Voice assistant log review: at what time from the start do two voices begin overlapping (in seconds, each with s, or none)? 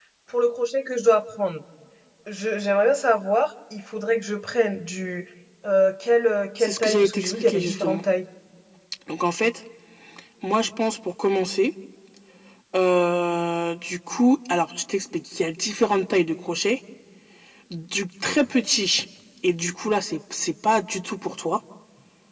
6.6 s